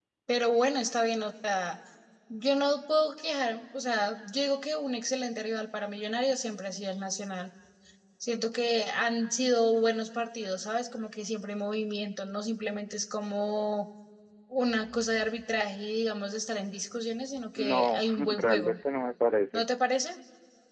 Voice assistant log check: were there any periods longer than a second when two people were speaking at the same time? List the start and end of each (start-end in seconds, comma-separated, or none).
17.6-18.8